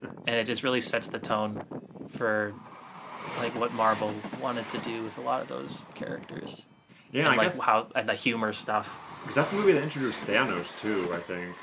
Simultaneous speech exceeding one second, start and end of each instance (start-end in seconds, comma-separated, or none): none